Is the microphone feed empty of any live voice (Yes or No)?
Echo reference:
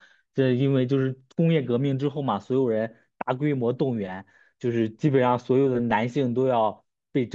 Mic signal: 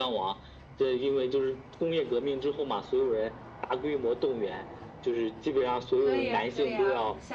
No